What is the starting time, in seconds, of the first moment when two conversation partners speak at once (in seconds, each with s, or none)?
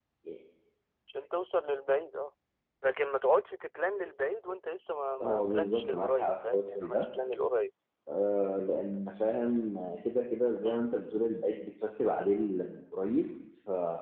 5.2 s